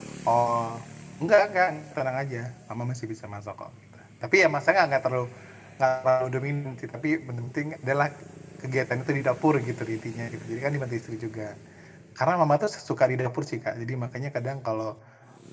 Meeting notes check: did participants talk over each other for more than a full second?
No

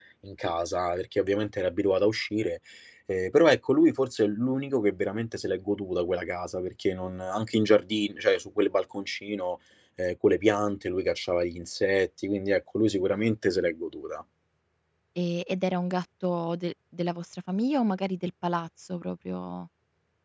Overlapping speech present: No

